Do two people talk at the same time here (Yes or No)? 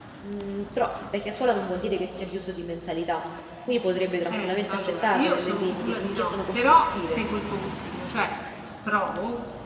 Yes